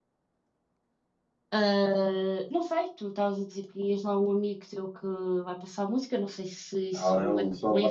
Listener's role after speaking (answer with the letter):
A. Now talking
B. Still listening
A